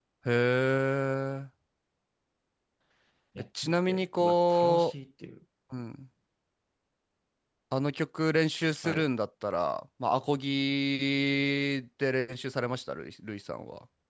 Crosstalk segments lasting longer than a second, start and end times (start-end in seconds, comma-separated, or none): 3.6-4.9